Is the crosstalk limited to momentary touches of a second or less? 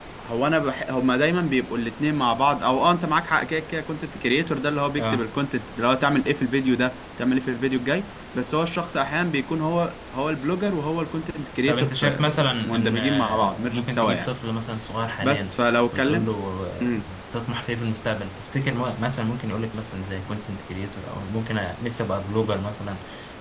No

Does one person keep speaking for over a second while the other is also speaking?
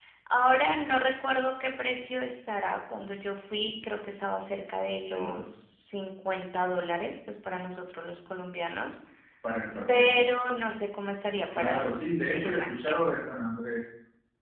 Yes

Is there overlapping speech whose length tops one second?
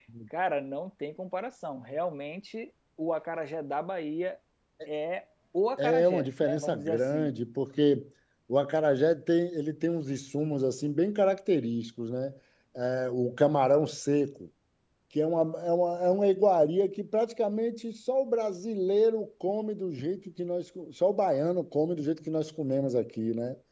Yes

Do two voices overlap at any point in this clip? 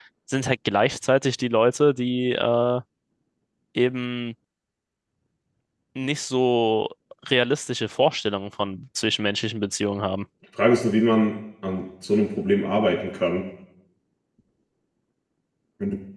No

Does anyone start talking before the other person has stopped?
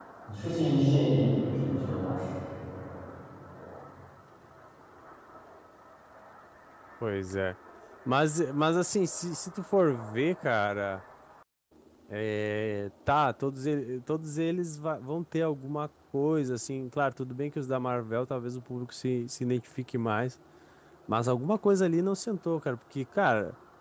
No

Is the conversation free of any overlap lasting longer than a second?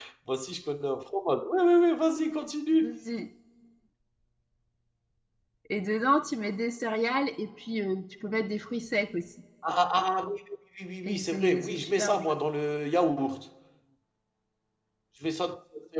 No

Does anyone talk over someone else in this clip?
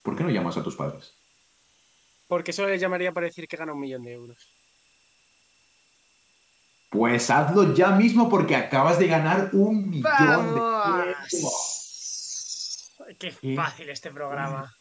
Yes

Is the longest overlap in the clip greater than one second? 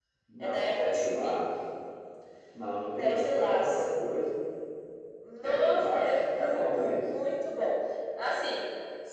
Yes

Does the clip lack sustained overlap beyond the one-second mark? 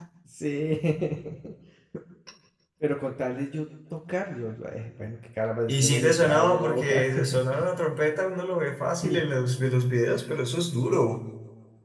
No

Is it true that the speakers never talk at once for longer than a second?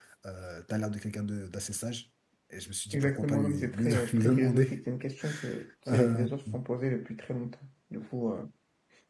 No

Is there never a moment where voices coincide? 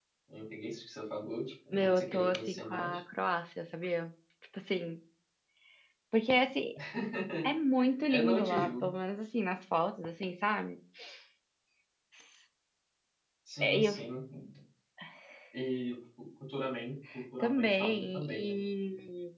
No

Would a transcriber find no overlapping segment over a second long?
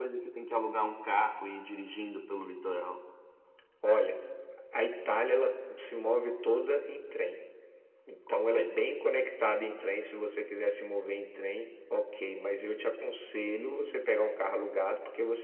Yes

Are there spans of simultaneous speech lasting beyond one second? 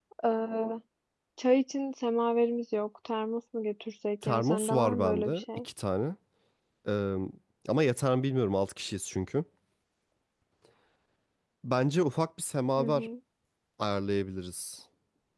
Yes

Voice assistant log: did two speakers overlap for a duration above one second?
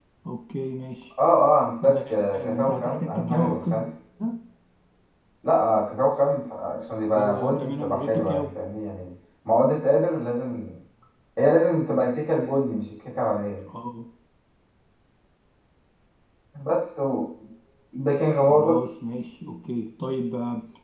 Yes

